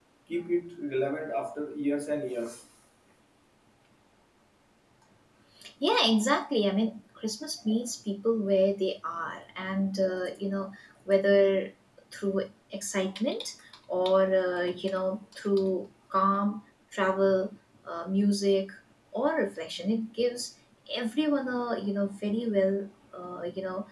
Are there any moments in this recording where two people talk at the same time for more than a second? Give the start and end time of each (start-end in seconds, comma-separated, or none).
none